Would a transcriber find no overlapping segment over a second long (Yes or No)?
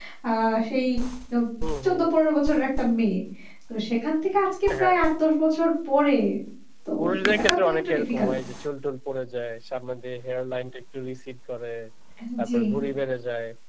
No